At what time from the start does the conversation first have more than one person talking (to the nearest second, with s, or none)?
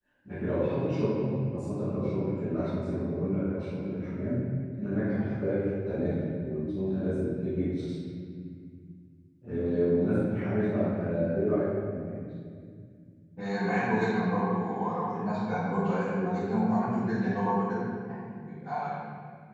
none